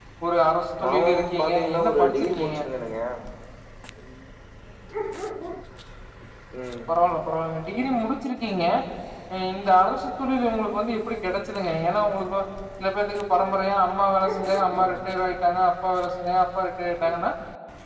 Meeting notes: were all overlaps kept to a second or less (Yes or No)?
No